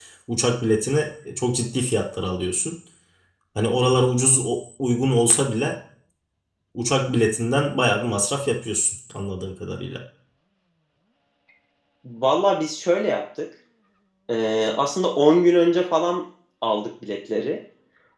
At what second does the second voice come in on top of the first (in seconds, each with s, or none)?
none